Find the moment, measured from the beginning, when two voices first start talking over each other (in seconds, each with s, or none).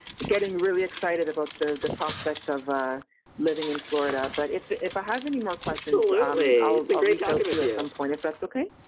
5.7 s